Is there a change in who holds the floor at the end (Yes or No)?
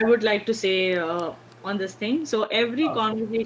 No